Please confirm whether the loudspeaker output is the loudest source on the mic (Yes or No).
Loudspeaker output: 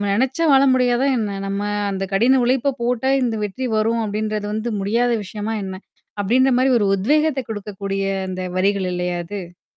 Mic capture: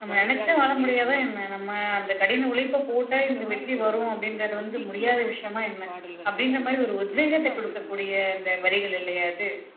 Yes